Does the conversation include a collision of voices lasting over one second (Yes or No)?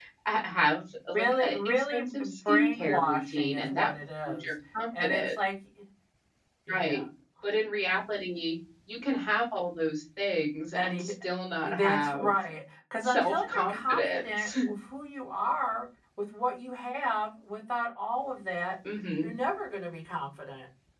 Yes